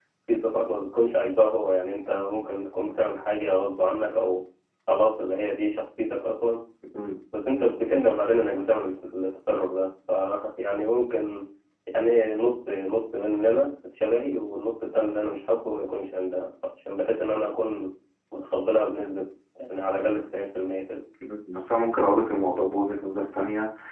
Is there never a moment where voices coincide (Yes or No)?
Yes